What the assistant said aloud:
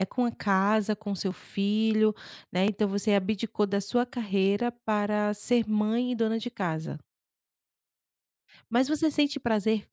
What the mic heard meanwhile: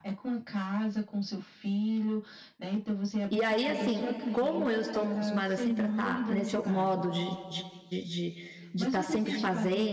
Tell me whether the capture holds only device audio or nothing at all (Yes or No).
No